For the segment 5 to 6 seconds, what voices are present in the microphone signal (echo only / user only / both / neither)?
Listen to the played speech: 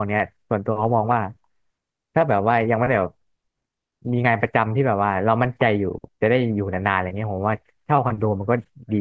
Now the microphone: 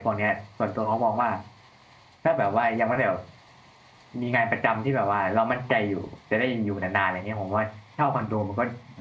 echo only